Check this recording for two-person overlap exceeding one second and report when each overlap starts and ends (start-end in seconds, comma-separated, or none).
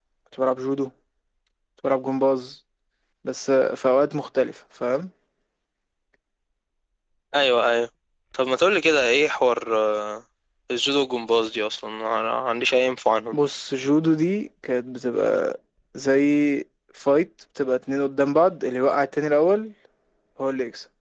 none